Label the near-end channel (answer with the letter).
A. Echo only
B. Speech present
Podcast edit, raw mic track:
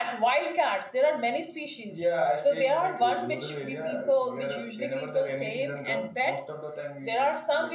A